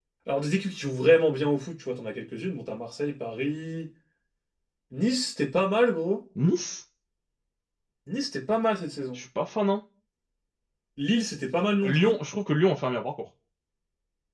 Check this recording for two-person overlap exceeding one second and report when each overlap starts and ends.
none

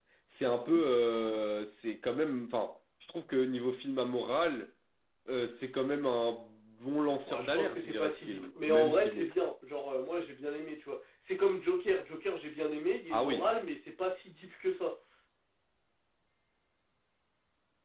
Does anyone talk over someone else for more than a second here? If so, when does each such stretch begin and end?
7.3-9.3

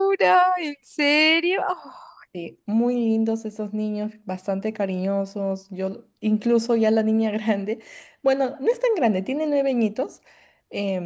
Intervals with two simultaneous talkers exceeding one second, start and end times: none

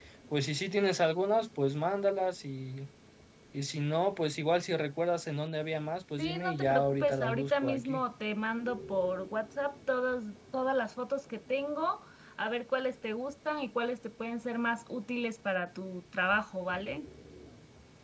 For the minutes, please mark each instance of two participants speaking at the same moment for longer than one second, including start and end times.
6.2-8.0

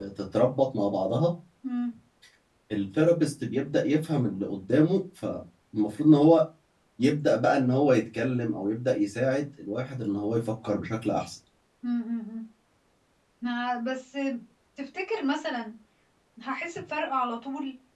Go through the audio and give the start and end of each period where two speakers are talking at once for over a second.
none

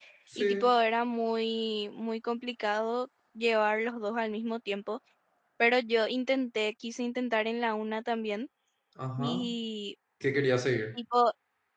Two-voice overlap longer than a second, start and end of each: none

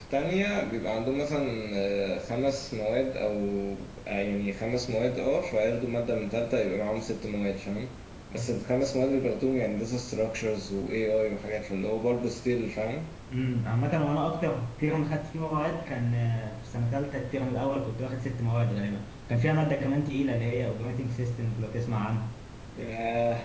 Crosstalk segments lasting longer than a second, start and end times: none

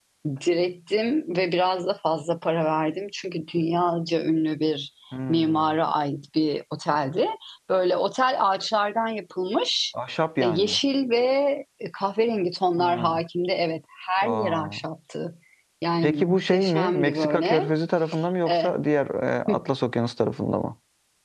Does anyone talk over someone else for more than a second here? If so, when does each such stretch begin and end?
16.0-17.7

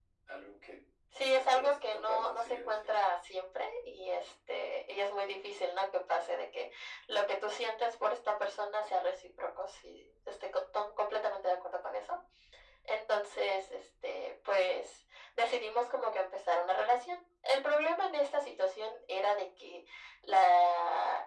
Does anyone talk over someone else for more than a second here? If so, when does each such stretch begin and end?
1.4-2.9

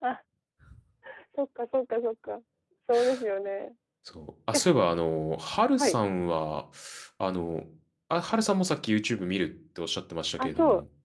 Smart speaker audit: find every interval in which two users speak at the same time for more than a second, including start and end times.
none

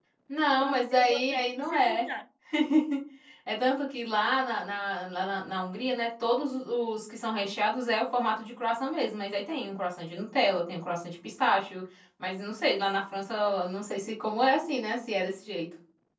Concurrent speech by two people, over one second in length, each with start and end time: 0.6-2.0

